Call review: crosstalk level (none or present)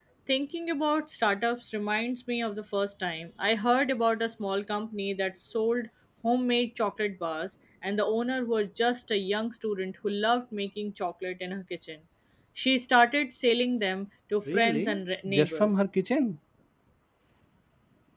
present